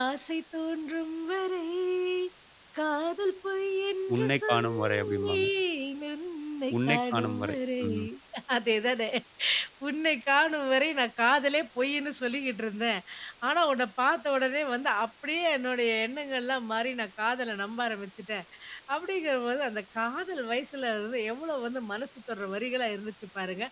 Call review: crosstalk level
present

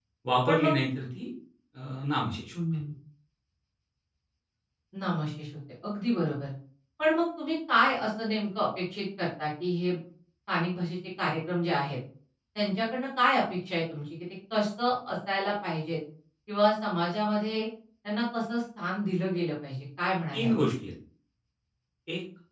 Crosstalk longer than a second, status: none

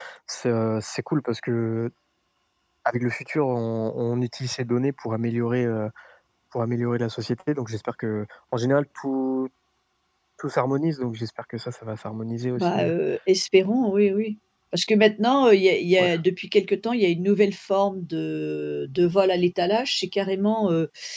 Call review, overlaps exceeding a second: none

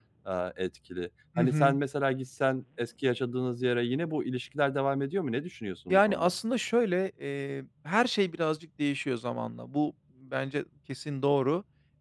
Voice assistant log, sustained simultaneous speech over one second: none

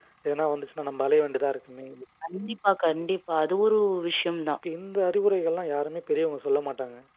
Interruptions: none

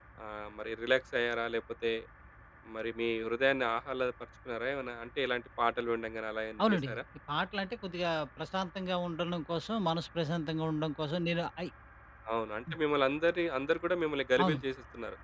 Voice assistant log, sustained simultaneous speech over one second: none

